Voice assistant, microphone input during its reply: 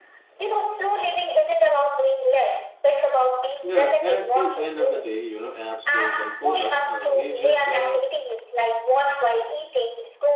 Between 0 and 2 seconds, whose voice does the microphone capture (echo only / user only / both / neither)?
echo only